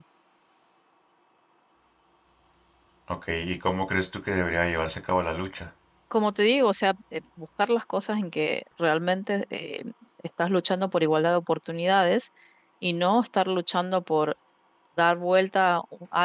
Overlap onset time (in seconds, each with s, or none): none